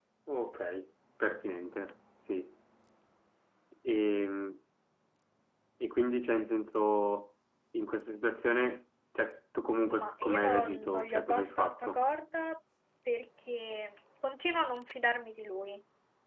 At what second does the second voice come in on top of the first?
10 s

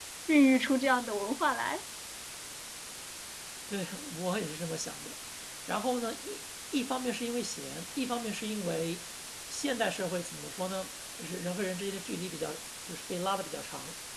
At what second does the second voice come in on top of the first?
none

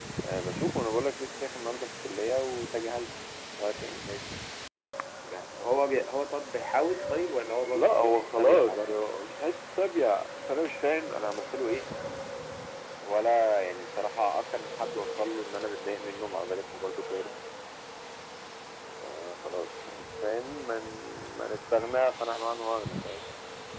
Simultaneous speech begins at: 8 s

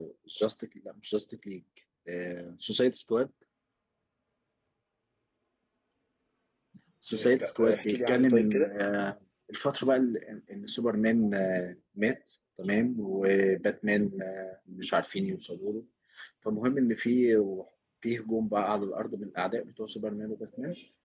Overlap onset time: 7 s

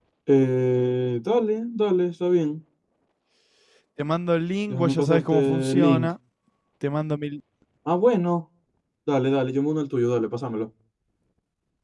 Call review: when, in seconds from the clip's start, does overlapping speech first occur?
5 s

